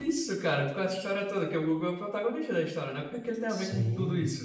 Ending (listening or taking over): taking over